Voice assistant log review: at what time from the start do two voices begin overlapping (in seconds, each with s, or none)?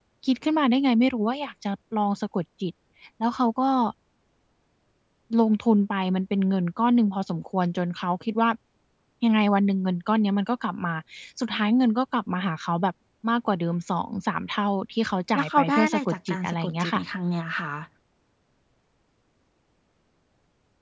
15.3 s